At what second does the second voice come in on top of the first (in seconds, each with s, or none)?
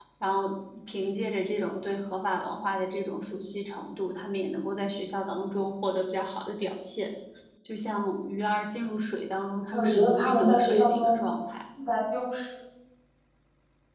9.7 s